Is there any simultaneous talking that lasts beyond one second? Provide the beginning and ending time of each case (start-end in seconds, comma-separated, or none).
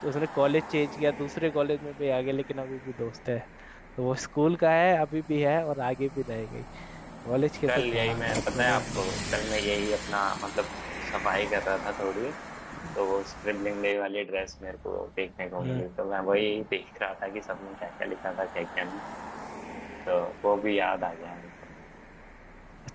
7.8-9.4